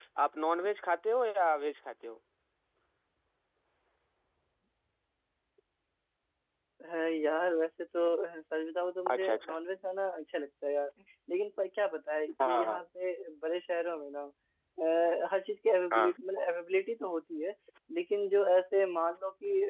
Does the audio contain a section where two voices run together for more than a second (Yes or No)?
No